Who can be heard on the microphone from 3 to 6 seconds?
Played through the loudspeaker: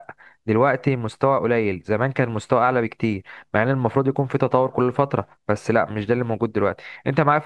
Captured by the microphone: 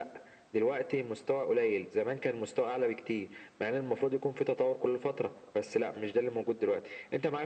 echo only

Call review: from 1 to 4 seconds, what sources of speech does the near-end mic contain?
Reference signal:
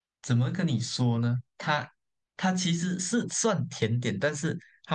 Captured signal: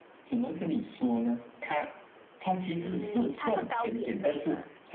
both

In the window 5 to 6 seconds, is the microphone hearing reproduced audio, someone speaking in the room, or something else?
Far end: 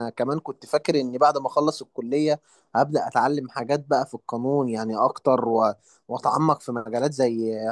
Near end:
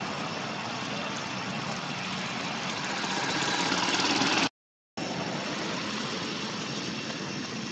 neither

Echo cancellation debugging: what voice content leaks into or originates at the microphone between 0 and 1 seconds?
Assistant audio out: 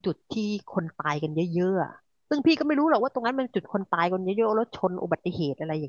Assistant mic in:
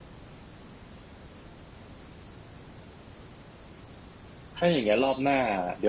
neither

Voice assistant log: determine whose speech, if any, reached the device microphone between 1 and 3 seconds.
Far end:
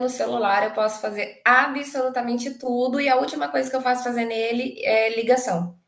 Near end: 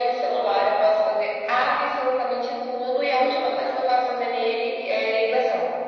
echo only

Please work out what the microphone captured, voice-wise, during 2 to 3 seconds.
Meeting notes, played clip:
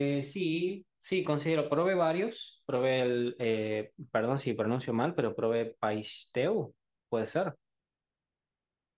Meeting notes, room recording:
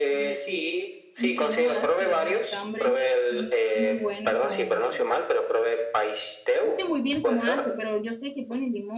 both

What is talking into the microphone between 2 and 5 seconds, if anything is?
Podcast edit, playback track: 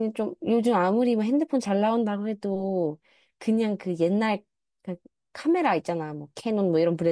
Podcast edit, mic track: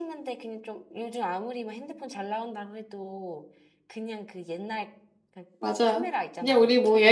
echo only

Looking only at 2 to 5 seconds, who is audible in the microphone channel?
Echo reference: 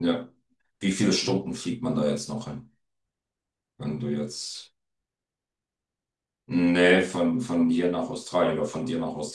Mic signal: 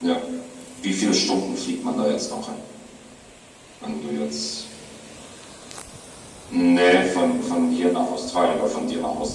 echo only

